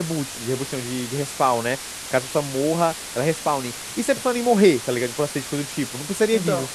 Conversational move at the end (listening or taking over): listening